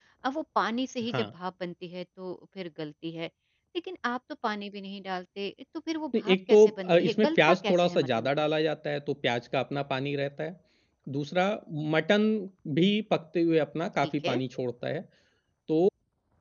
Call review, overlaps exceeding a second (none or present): present